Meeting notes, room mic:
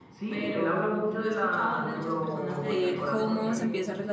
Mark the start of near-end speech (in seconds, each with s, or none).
2.7 s